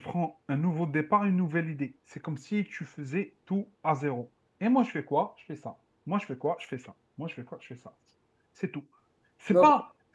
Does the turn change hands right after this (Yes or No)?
No